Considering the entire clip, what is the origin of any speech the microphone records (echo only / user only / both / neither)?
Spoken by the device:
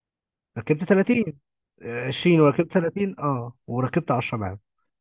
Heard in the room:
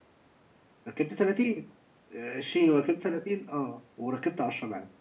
echo only